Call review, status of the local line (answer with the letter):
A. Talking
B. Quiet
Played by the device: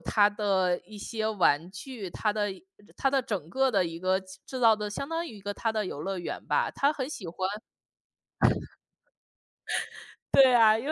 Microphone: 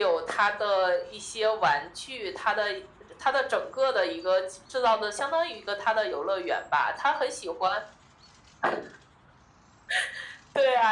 B